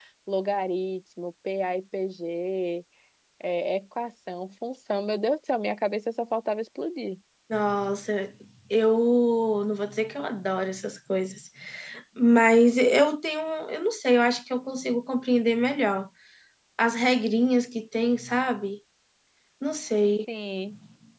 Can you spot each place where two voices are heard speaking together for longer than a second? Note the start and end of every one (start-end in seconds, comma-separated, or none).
none